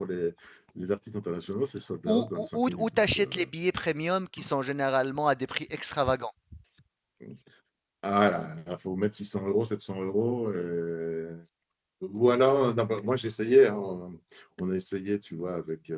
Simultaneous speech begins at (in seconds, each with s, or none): 2.1 s